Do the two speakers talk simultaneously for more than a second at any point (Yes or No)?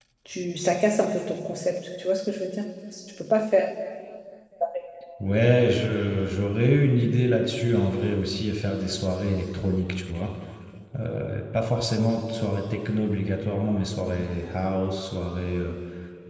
No